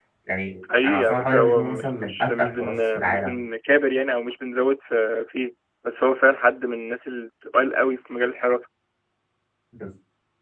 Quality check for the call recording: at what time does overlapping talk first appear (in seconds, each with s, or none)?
0.8 s